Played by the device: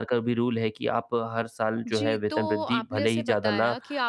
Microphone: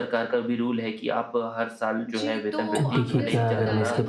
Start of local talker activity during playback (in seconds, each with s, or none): 2.8 s